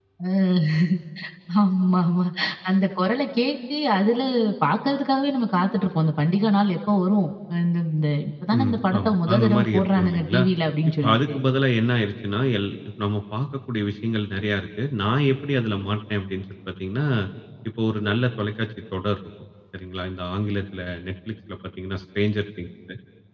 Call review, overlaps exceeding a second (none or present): present